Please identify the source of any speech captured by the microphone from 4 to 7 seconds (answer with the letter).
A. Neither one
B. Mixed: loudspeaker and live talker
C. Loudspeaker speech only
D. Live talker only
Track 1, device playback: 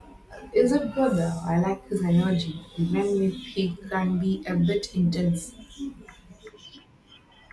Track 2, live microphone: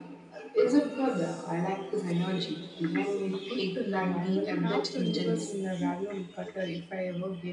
B